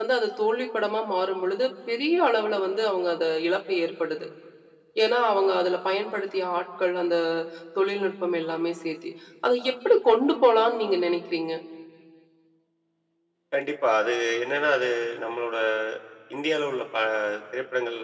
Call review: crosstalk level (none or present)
none